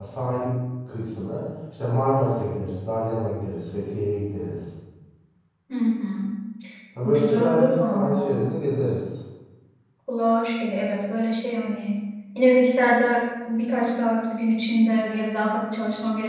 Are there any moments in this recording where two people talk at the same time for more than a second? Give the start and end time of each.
7.0-8.4

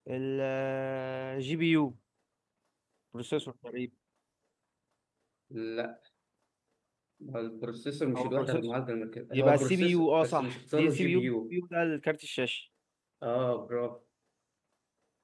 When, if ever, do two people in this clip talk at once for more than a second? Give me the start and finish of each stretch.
9.3-11.6

